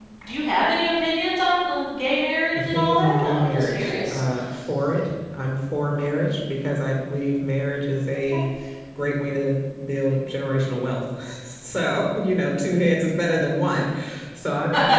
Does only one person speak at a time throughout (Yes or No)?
No